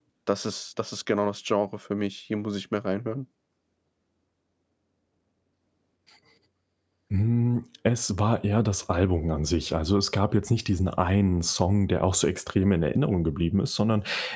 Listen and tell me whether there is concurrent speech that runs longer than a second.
No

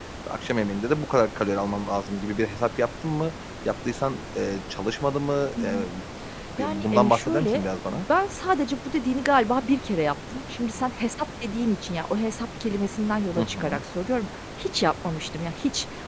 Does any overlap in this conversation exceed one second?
Yes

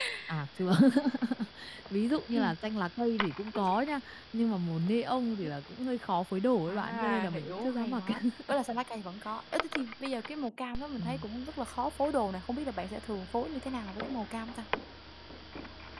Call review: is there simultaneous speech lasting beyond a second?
Yes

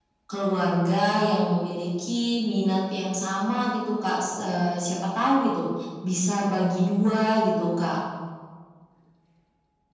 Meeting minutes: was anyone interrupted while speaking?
No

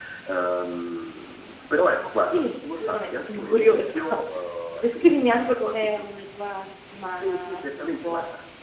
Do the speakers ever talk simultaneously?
Yes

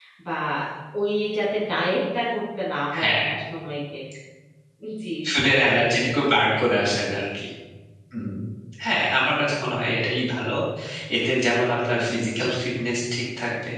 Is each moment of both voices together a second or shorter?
Yes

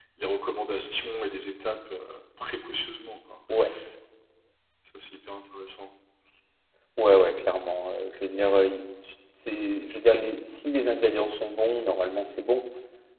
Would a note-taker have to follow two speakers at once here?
No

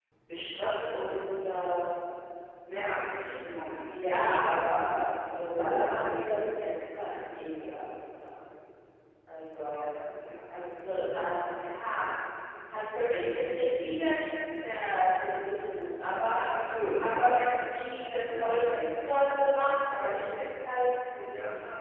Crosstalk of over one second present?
No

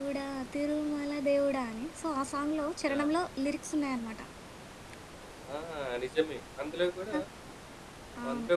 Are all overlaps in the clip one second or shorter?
Yes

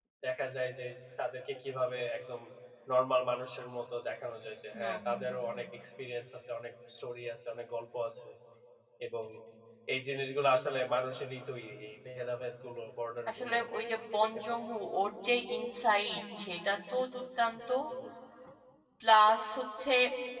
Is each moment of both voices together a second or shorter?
Yes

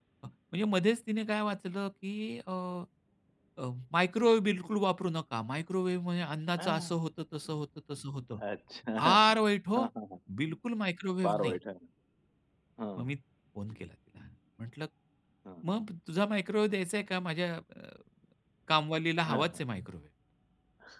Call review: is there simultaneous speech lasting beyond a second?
No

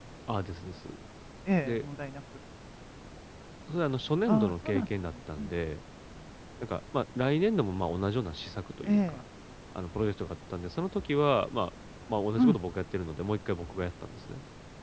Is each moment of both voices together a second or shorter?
No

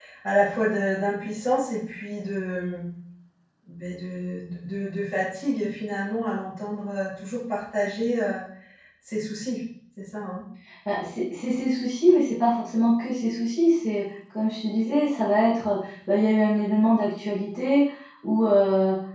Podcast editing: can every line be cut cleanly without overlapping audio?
Yes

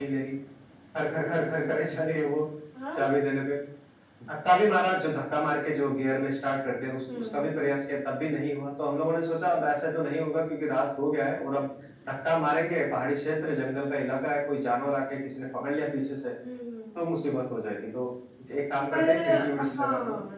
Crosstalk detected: Yes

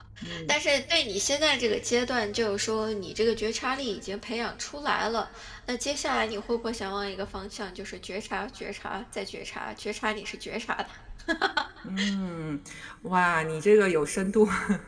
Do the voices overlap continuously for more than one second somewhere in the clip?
No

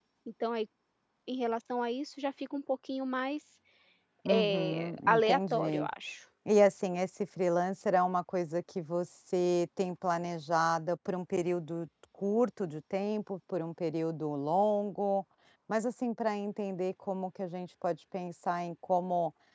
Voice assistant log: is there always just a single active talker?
No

